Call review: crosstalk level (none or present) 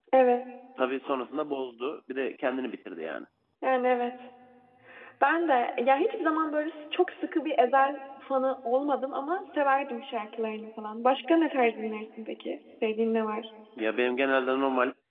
none